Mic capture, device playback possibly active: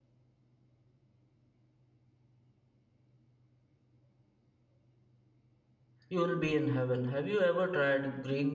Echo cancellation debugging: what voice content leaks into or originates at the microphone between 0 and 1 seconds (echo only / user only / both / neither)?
neither